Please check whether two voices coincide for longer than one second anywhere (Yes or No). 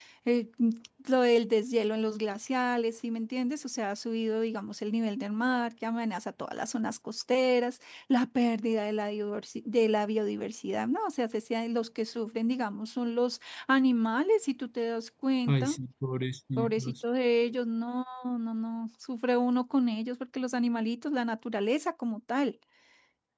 No